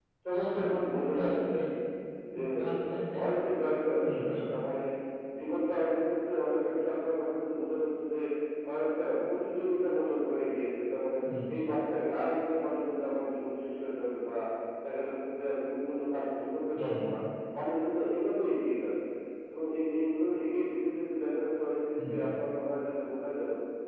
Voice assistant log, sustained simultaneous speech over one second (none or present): present